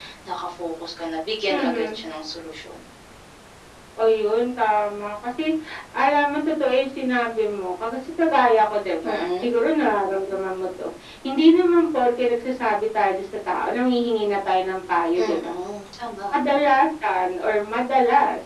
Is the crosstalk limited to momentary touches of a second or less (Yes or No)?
Yes